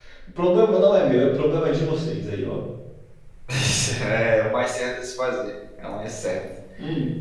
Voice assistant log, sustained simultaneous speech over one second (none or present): none